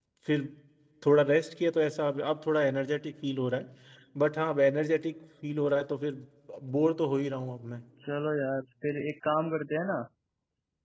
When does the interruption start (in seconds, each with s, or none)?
none